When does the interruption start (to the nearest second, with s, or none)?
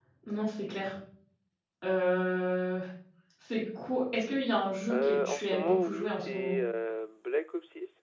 5 s